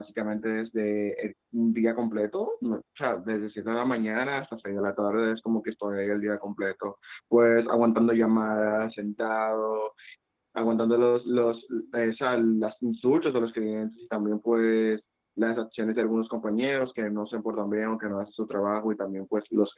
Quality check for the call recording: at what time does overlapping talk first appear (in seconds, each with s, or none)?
none